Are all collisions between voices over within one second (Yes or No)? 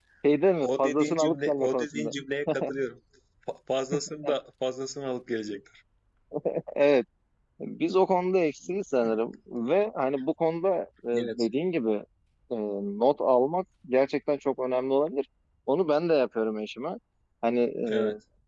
No